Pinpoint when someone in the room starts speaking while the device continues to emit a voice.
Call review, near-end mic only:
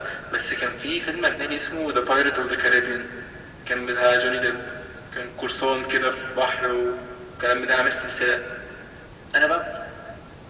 none

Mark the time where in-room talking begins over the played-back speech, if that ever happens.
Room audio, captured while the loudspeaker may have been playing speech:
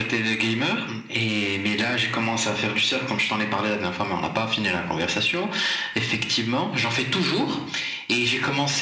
none

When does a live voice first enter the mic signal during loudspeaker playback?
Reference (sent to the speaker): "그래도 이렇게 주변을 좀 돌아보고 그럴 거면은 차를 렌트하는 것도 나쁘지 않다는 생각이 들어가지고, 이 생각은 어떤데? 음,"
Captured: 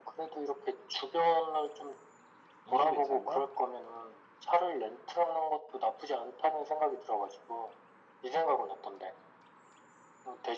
2.6 s

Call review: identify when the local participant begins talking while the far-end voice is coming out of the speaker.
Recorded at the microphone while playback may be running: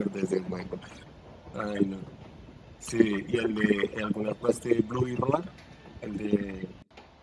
none

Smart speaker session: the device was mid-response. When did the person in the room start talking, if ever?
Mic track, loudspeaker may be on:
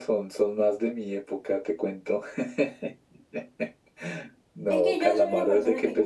4.7 s

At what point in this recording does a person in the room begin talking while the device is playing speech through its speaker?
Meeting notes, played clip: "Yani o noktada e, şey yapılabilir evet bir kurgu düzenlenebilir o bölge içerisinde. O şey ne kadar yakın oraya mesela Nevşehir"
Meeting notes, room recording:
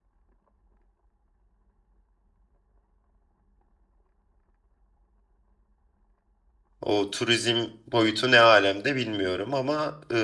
6.8 s

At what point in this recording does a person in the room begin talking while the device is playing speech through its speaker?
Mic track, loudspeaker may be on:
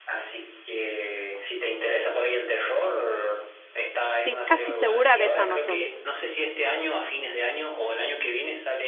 4.2 s

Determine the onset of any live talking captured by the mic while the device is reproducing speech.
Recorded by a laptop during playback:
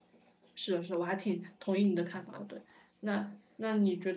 0.5 s

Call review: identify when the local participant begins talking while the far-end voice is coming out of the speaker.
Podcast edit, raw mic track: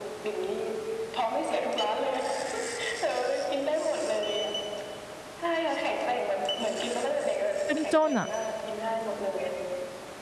7.7 s

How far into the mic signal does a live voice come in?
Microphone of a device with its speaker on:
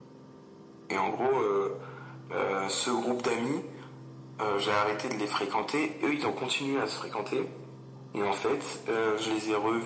none

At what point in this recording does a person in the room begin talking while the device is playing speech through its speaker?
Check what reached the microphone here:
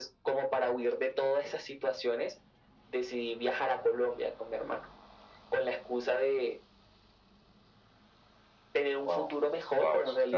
9.0 s

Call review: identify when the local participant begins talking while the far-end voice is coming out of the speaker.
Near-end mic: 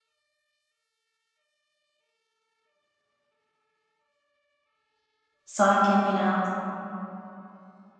5.5 s

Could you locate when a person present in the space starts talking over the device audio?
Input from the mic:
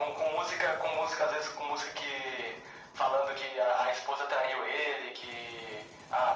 none

